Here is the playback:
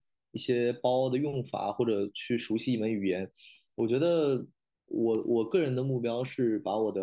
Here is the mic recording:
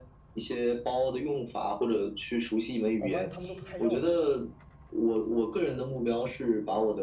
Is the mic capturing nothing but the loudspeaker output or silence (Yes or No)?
No